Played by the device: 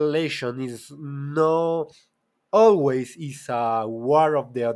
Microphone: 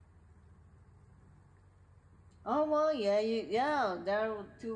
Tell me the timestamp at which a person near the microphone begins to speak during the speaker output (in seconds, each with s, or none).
2.4 s